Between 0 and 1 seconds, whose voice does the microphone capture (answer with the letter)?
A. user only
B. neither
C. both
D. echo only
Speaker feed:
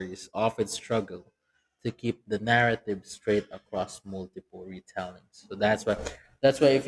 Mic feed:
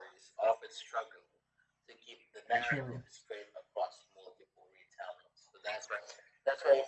D